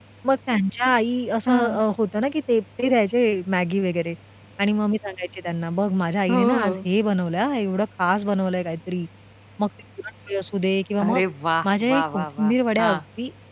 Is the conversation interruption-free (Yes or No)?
No